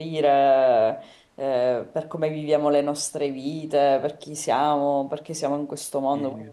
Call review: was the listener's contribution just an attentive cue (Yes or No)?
Yes